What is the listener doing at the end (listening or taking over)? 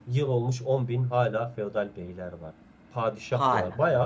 listening